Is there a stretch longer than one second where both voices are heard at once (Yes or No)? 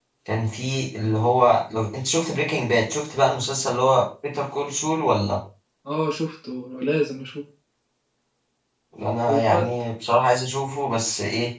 No